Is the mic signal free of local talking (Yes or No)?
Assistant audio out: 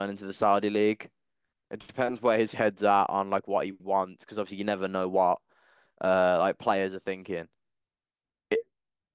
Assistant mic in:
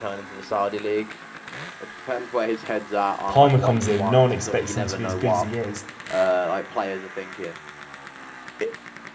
No